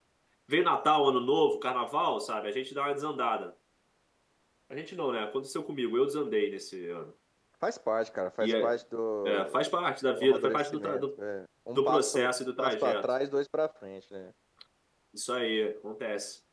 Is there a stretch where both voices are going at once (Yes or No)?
Yes